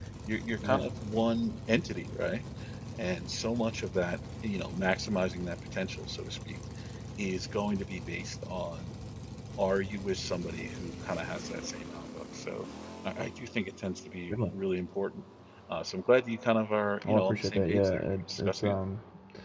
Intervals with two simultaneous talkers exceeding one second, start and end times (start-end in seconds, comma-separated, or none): 17.1-18.8